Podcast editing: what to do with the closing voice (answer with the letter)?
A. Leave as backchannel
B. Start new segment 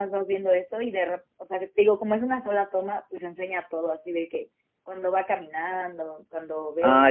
B